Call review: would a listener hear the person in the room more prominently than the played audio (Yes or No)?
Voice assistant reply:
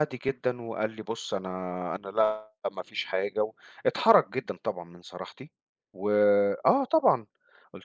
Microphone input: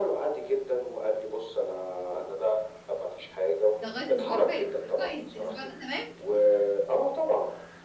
No